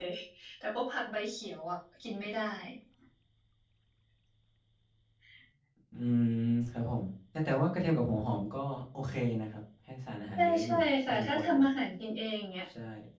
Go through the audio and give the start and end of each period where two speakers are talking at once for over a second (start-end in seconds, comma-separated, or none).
10.4-11.6